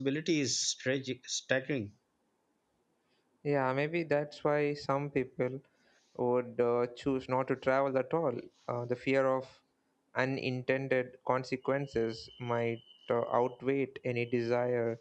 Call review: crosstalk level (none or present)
none